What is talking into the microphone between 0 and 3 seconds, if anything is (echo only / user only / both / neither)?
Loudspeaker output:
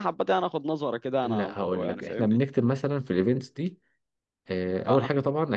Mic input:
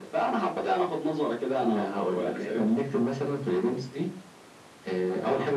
echo only